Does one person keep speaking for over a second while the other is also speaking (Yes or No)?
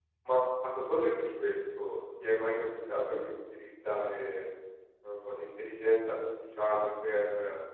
No